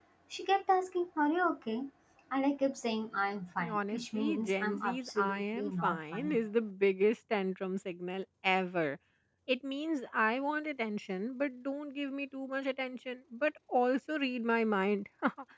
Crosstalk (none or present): present